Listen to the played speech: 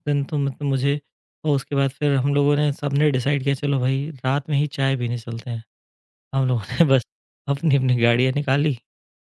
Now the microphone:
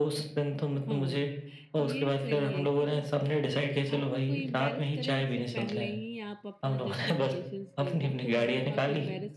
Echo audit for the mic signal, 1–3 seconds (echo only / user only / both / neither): both